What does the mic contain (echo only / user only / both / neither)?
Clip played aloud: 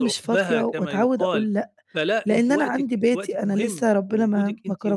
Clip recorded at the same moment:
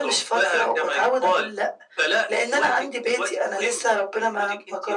echo only